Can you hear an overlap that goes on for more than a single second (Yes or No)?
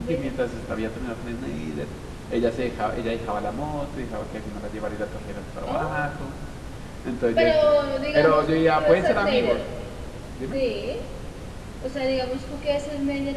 Yes